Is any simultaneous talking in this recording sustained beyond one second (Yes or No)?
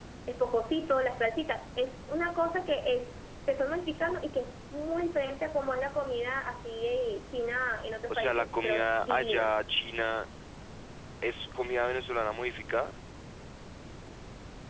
Yes